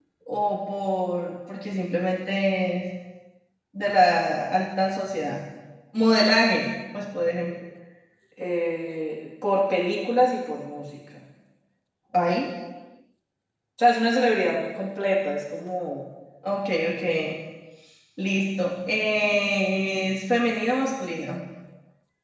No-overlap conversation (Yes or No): Yes